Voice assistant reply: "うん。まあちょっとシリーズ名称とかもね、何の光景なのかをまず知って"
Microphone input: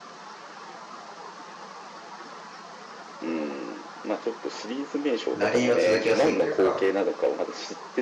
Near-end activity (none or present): present